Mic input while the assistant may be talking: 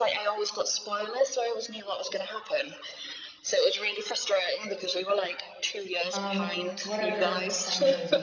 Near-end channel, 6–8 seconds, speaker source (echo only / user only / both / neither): both